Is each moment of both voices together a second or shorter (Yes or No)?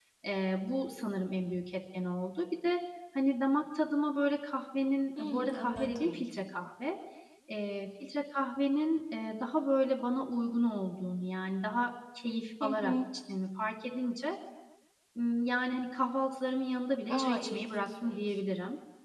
No